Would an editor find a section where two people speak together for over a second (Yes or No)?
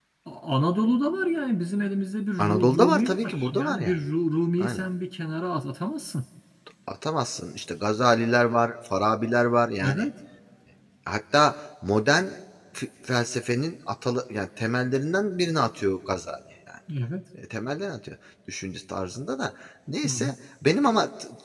Yes